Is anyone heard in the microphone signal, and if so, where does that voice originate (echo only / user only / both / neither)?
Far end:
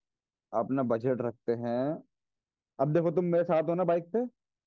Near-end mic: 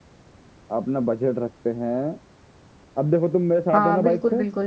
both